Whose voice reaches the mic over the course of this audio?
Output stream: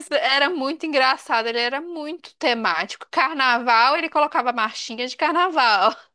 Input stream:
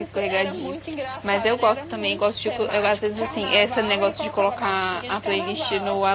both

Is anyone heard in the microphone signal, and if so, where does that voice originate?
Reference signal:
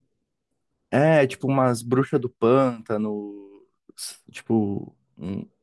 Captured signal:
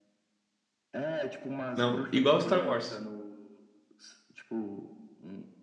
both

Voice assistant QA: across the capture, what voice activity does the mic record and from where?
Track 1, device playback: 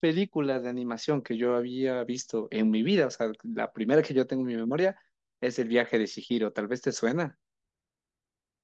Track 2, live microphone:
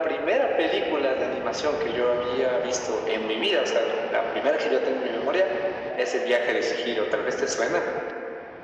echo only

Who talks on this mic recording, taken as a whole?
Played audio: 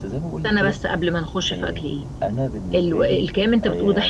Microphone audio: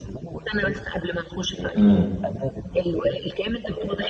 both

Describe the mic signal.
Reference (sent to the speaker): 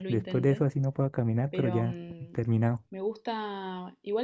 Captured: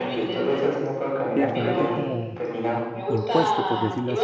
both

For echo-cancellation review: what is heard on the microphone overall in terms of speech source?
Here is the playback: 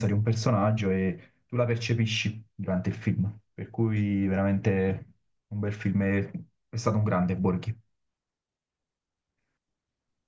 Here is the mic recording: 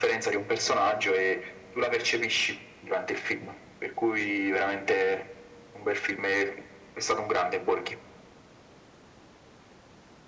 echo only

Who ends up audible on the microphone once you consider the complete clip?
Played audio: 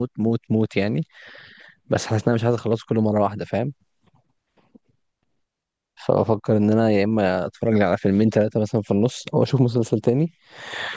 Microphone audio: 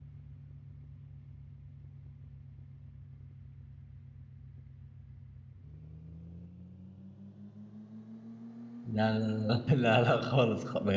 user only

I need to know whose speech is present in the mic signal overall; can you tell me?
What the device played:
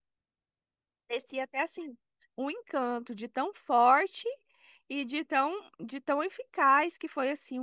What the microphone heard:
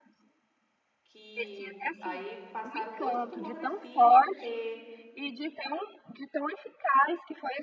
both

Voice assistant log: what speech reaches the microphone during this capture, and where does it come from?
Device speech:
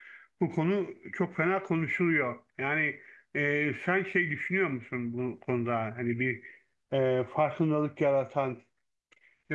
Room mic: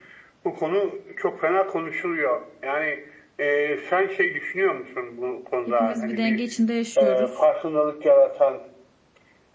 both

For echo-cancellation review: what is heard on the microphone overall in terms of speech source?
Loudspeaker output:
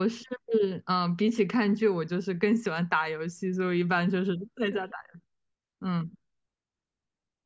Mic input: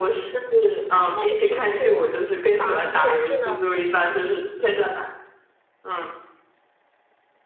both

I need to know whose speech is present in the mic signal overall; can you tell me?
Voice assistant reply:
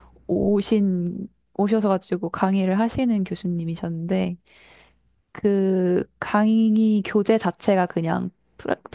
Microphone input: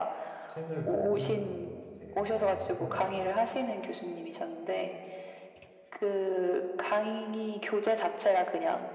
both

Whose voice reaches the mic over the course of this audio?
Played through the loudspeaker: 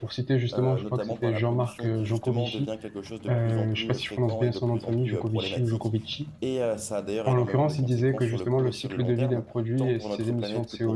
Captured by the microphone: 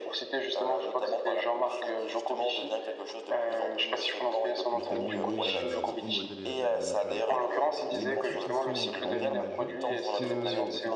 both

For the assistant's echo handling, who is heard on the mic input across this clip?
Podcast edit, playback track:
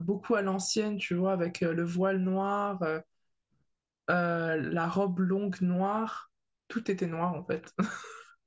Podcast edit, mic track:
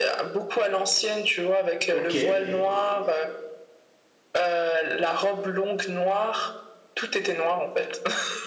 both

